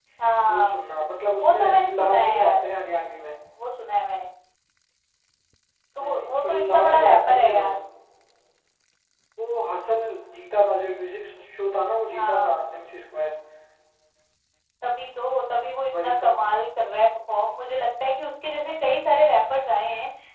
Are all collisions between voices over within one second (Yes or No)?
No